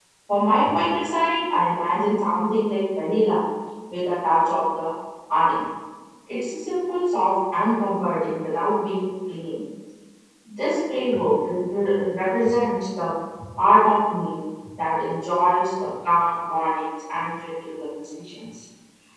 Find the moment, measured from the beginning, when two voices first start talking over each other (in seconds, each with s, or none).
none